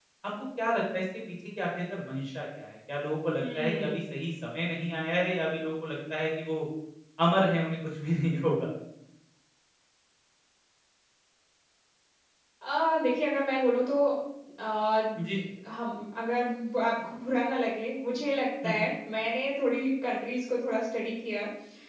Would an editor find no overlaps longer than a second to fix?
Yes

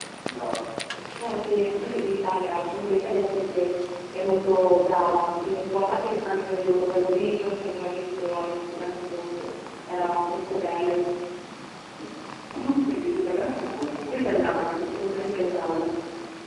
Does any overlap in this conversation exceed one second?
No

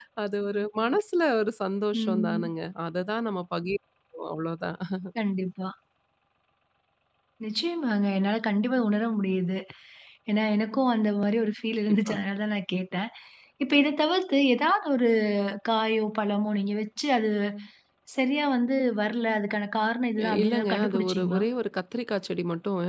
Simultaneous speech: Yes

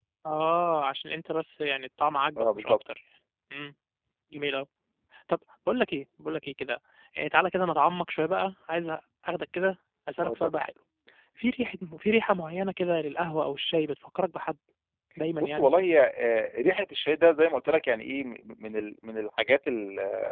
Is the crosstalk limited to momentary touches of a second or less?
Yes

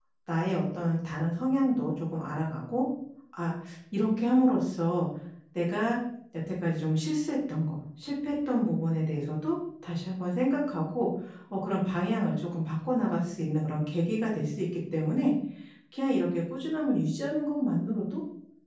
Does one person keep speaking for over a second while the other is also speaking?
No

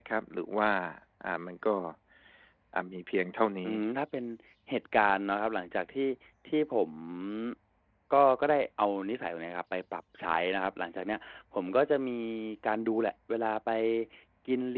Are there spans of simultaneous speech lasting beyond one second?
No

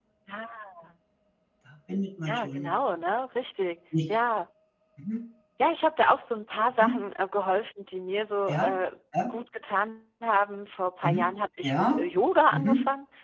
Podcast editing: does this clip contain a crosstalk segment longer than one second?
No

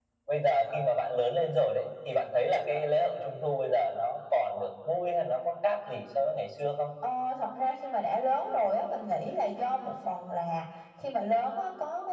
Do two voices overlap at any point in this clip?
No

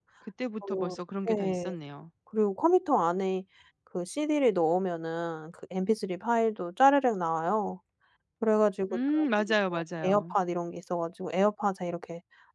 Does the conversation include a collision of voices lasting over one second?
Yes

